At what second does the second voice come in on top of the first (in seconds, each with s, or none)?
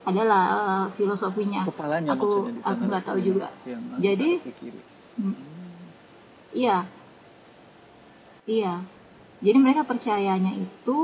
2.1 s